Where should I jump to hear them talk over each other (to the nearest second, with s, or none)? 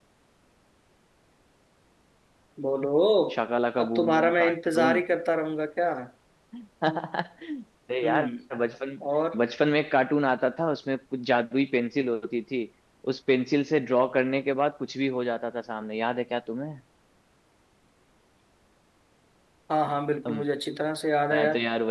4 s